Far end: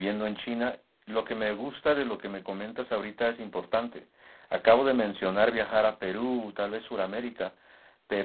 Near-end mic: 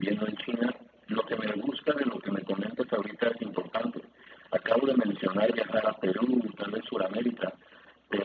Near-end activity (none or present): none